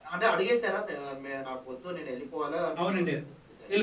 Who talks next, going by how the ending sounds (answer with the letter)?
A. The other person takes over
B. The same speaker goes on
A